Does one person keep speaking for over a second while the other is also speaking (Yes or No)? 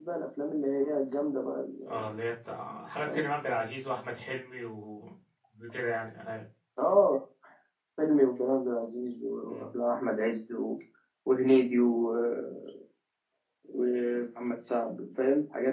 No